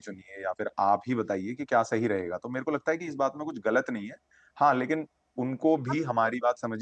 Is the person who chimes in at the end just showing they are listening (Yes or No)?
Yes